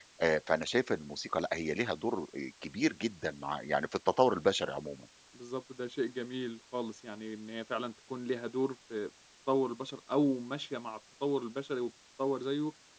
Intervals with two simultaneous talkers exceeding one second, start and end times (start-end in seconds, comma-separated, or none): none